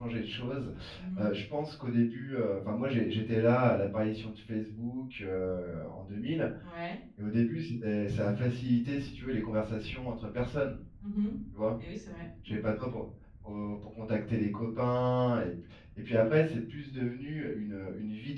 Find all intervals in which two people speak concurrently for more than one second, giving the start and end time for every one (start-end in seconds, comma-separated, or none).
none